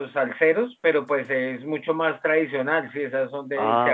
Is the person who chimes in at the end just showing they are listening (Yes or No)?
Yes